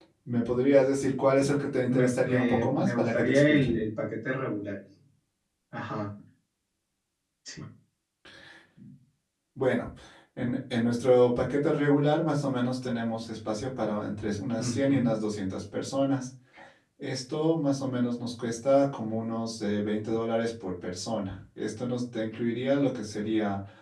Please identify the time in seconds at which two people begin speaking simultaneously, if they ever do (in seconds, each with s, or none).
1.9 s